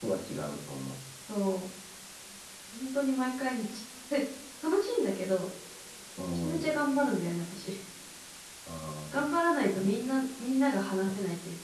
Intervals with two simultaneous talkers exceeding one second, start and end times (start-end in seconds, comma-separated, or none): none